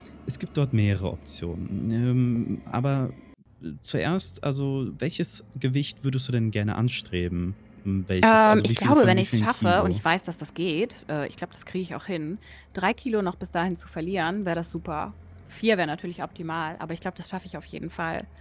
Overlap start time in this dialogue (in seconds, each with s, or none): 8.2 s